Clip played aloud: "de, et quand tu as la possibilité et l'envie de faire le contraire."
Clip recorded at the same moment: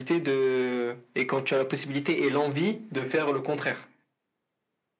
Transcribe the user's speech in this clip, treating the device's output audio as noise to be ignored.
none

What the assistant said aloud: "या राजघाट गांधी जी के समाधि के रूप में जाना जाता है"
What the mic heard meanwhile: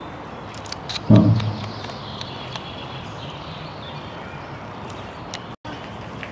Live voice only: हाँ

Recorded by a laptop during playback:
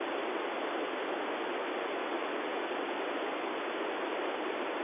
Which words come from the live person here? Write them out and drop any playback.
none

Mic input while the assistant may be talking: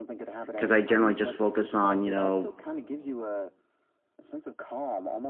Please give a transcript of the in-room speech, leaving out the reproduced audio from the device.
because I generally just focus on, you know,

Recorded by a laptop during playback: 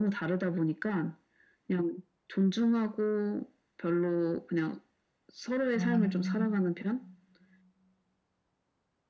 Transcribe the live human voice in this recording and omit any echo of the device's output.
음,

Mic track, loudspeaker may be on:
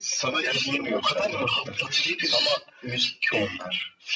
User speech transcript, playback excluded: none

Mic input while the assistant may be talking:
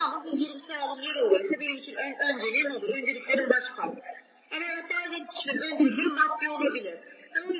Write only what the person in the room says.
none

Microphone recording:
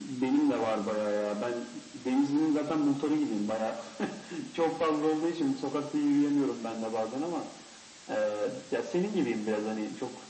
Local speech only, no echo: none

